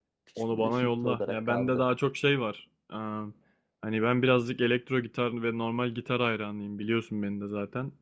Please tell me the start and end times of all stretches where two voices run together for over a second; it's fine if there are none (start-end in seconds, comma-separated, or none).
0.5-1.9